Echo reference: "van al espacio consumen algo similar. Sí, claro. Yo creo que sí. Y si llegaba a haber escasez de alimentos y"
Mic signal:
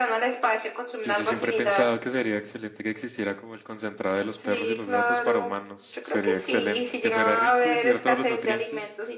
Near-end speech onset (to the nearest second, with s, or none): 1 s